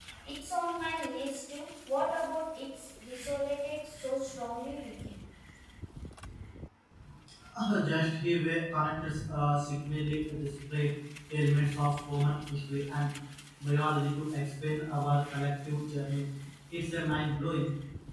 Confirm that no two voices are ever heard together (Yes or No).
Yes